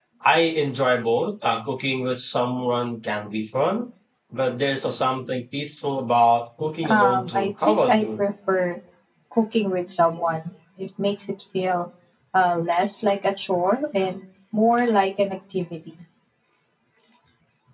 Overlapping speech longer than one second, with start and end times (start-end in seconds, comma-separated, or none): 6.9-8.2